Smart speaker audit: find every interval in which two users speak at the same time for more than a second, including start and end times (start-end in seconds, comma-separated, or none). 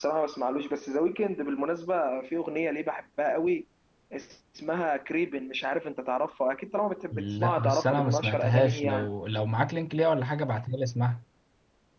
7.1-9.1